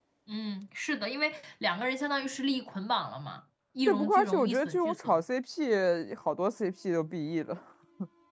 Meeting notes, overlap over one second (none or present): present